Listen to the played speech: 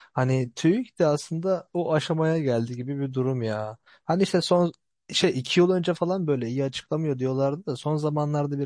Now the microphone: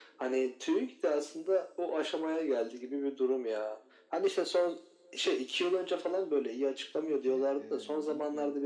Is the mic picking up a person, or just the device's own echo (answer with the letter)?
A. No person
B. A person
B